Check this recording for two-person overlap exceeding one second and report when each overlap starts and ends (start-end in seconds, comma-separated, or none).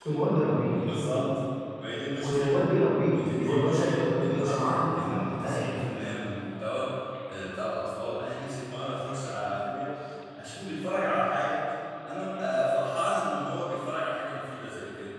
3.1-5.8